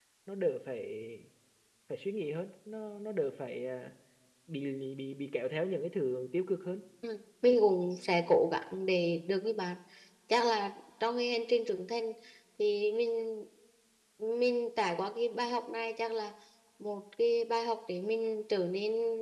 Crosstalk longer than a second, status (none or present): none